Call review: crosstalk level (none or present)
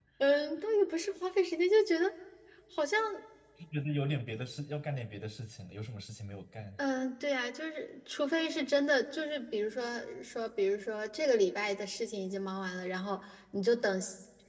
none